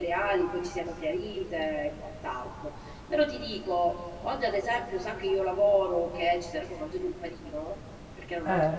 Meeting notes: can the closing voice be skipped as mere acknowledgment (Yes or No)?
Yes